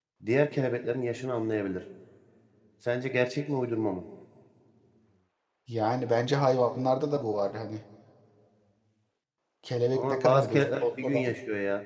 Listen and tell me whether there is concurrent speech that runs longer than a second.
Yes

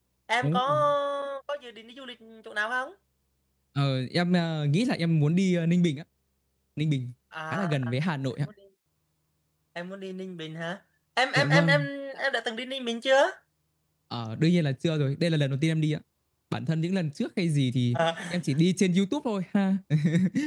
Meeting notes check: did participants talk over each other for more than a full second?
No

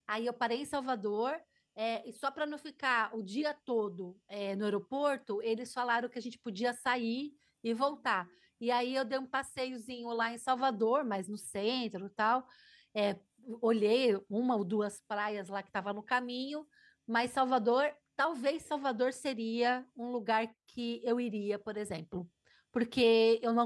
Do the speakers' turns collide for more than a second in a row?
No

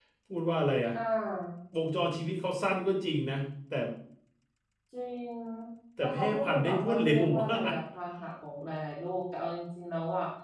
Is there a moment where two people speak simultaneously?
Yes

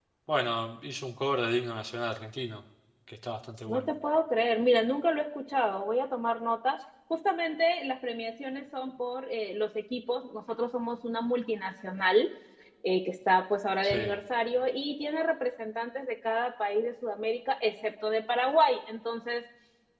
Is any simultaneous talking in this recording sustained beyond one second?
No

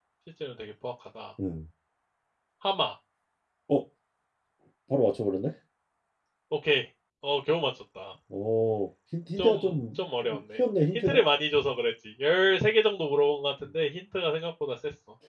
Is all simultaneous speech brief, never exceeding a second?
No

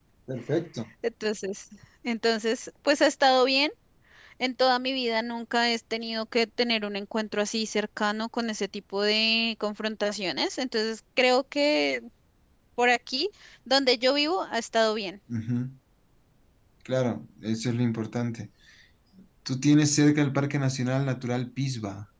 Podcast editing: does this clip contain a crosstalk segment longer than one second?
No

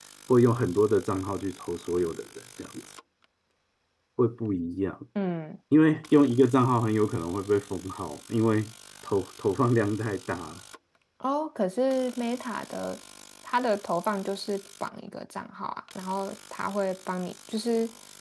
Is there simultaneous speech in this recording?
No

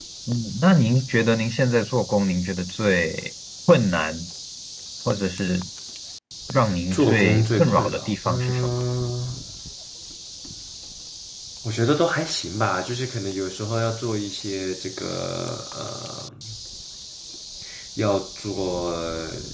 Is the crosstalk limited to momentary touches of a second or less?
No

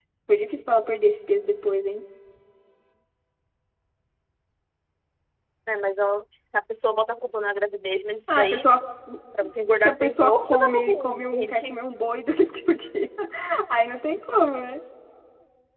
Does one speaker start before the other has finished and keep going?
Yes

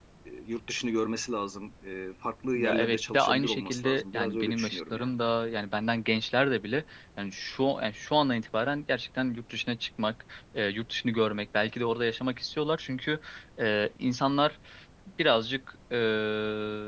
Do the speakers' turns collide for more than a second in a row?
Yes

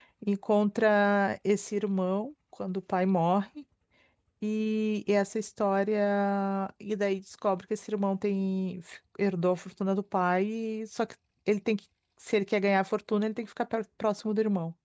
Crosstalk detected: No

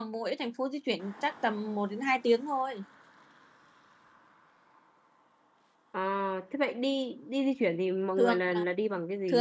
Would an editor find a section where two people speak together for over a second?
No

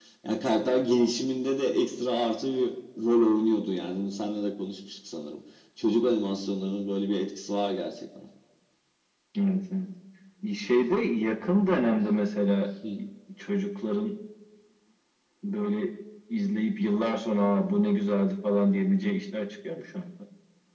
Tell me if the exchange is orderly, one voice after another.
Yes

